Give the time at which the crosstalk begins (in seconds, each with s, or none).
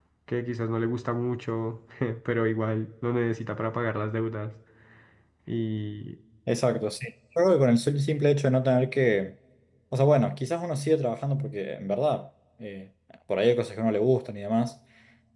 none